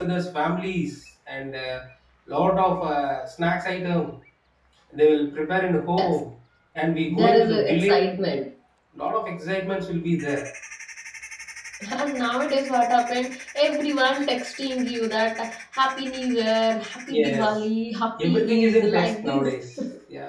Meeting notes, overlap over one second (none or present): present